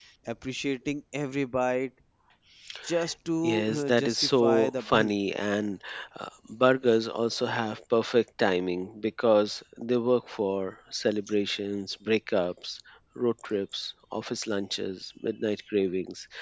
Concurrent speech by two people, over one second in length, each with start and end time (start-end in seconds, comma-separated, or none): 3.4-5.1